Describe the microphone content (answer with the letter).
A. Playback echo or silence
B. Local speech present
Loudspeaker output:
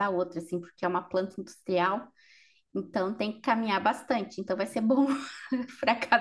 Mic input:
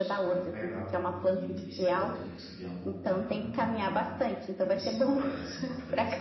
B